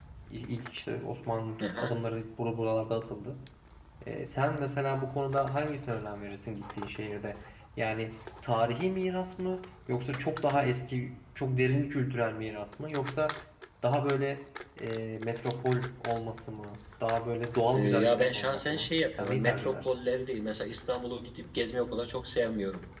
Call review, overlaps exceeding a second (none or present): present